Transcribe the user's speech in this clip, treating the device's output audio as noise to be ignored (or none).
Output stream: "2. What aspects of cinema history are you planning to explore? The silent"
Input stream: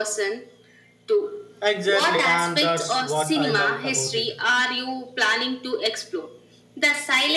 Exactly, and that's what I love about it.